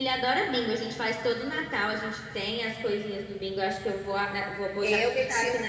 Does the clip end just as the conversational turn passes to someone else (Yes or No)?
Yes